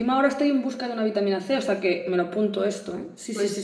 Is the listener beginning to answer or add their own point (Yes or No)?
Yes